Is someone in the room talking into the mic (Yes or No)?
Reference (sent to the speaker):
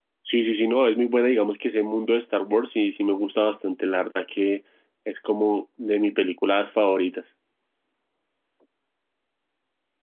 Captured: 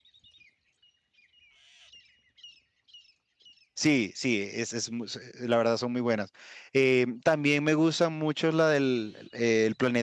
Yes